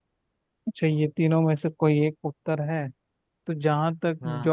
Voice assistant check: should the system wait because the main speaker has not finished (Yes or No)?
Yes